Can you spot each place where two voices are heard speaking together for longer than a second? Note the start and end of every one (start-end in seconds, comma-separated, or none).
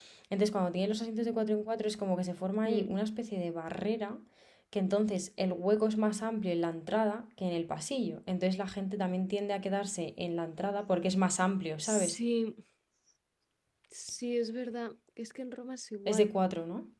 none